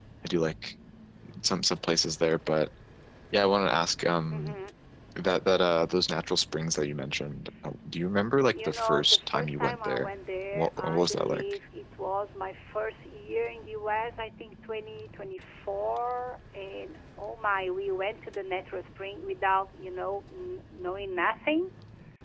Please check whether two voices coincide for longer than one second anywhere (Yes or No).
Yes